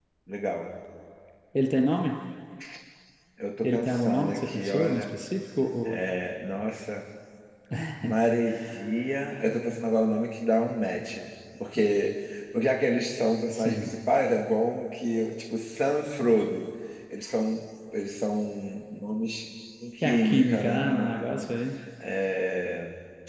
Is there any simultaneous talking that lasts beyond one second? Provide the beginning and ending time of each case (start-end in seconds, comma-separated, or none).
3.6-5.2, 20.0-21.5